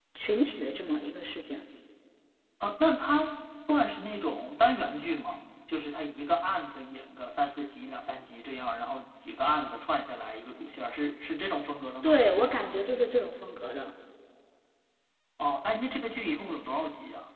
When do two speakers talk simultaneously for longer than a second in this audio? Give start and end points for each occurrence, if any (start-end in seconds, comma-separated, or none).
none